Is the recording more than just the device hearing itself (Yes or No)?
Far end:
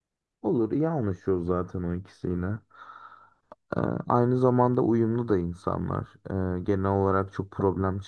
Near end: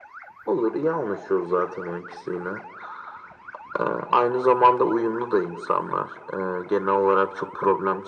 No